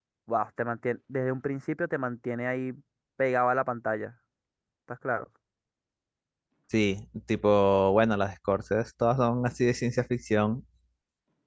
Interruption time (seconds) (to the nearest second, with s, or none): none